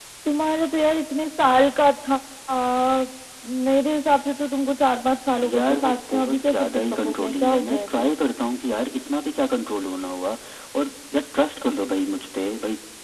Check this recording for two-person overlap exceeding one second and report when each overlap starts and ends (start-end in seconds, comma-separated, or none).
5.5-8.1